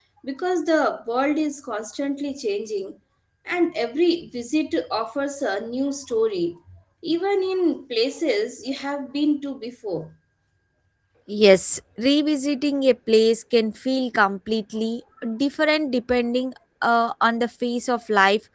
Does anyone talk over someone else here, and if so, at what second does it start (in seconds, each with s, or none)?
none